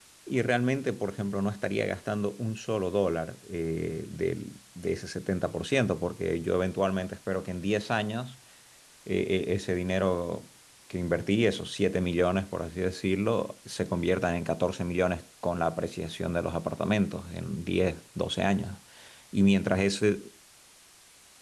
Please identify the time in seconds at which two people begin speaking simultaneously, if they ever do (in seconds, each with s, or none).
none